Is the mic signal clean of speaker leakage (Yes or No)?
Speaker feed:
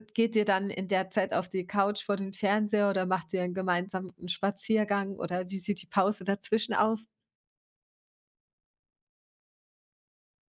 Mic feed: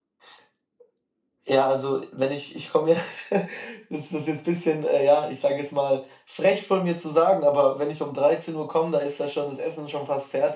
Yes